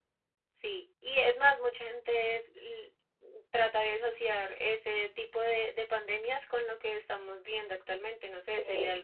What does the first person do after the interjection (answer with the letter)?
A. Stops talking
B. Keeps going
B